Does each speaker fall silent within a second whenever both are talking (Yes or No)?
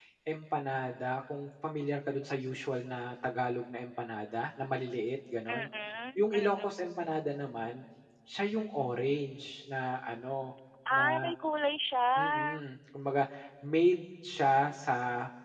Yes